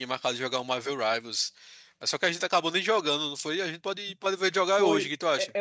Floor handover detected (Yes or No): Yes